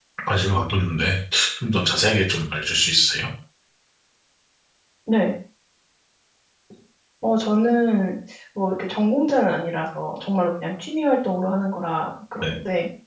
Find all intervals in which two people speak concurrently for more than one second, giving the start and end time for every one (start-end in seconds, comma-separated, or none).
none